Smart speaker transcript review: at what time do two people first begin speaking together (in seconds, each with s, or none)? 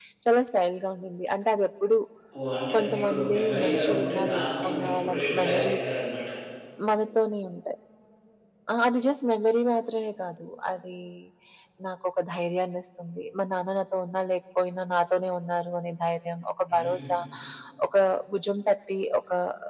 2.8 s